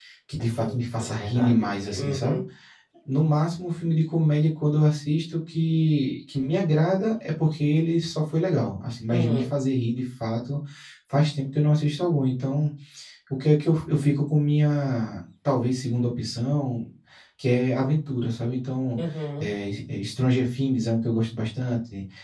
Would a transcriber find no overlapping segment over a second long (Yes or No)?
No